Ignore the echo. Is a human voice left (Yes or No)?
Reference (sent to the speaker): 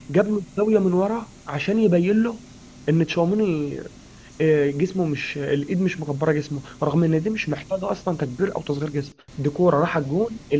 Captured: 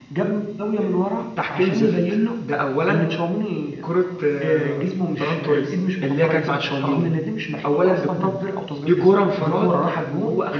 Yes